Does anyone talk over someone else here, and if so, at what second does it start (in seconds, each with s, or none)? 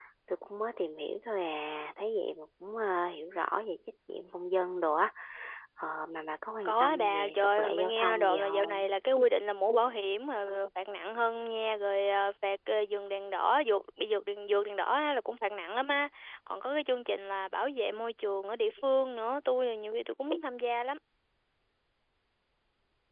6.7 s